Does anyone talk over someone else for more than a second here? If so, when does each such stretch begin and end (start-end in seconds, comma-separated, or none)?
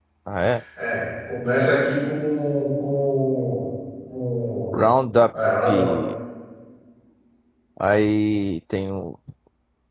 none